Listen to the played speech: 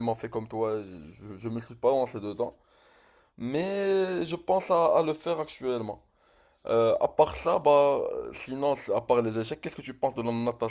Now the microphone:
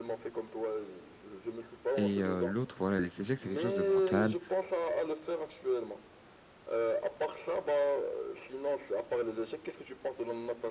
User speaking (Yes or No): Yes